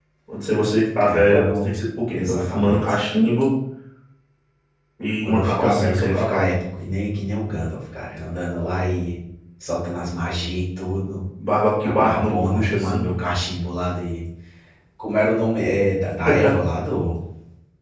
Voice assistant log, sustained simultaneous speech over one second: present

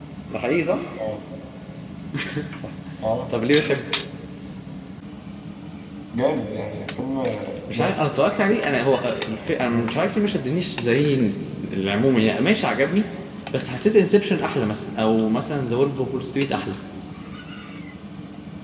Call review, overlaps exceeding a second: none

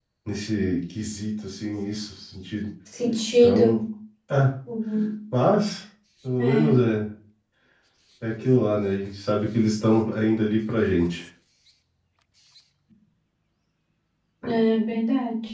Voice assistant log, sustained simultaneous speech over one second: none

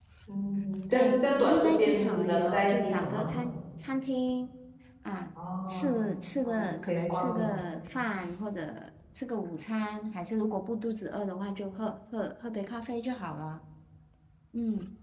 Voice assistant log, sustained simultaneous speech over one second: present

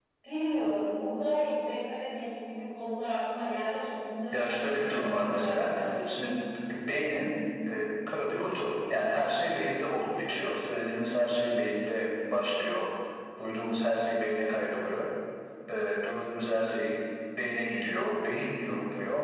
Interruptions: present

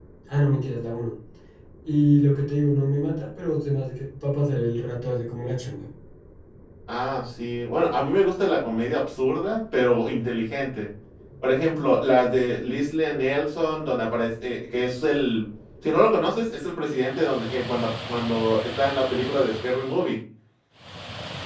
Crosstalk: none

